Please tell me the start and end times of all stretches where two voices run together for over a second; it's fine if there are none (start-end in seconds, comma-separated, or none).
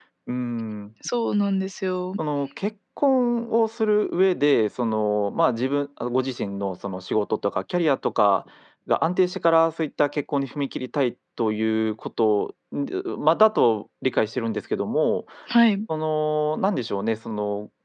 none